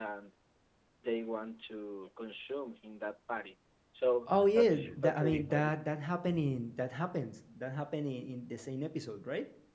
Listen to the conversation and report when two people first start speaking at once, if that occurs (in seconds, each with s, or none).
4.5 s